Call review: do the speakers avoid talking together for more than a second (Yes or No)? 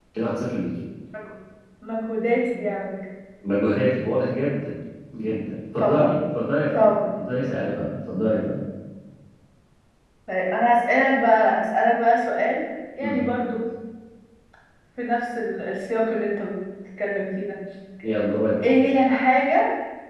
Yes